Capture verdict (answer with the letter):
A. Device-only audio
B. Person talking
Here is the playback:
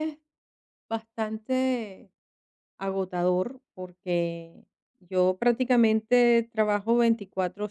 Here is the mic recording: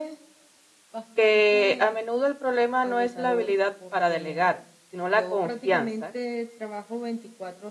B